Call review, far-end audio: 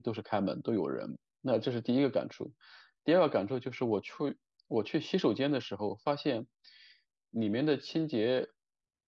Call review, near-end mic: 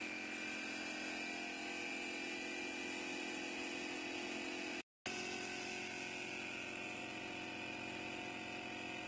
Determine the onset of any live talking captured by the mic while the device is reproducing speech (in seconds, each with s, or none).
none